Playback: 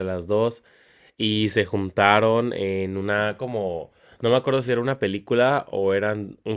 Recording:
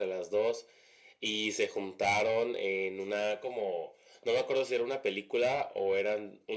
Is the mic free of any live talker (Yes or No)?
Yes